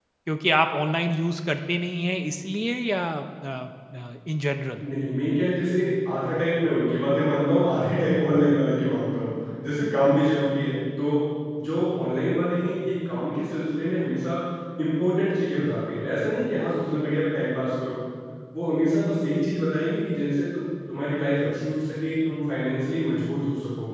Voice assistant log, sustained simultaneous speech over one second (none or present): none